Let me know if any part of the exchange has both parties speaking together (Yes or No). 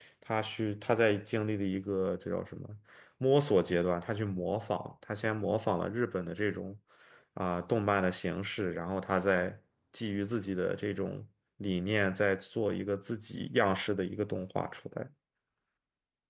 No